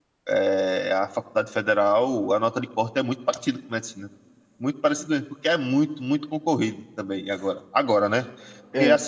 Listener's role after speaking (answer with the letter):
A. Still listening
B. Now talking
A